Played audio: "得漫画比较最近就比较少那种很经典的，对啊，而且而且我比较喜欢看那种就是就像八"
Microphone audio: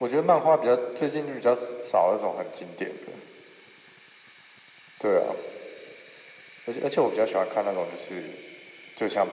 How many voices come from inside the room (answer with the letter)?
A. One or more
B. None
B